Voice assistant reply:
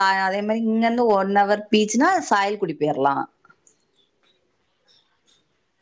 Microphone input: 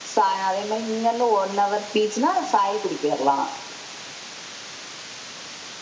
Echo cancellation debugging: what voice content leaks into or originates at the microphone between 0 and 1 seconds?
echo only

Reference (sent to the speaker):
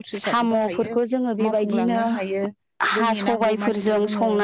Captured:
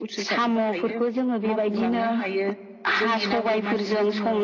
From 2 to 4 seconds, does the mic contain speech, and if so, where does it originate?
both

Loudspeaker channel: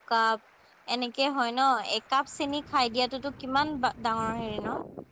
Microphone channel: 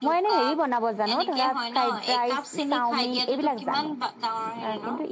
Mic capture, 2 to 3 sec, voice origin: both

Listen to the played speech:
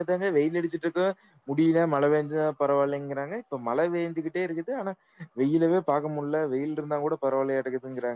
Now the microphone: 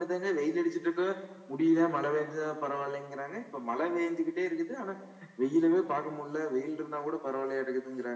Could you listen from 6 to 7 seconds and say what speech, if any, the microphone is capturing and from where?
echo only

